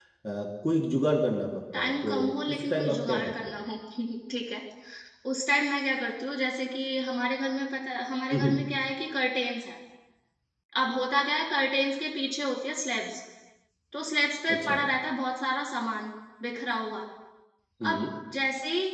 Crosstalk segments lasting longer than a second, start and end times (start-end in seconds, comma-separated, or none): 1.8-3.6